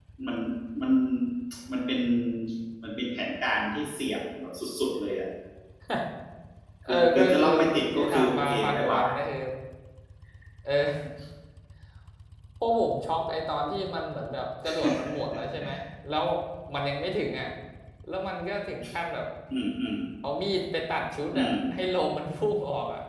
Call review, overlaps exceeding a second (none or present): present